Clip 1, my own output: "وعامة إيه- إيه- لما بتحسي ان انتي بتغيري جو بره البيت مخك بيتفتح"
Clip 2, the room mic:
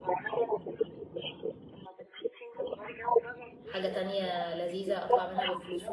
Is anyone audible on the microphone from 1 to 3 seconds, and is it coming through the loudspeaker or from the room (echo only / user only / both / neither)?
echo only